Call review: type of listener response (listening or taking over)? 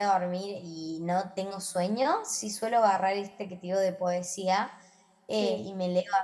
listening